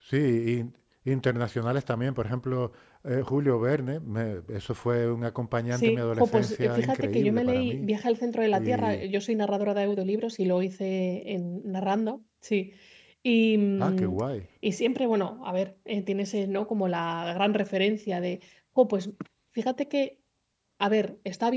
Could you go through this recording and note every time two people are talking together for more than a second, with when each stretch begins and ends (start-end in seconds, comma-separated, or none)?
5.7-7.9